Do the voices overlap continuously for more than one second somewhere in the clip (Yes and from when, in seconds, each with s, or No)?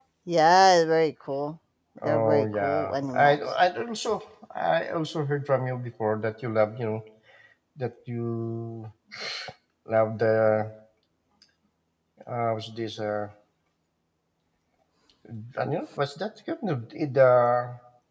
Yes, from 2.0 s